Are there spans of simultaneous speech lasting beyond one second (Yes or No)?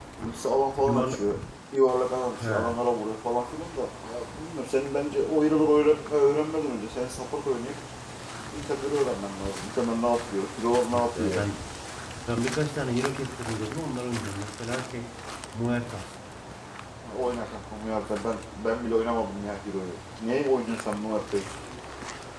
No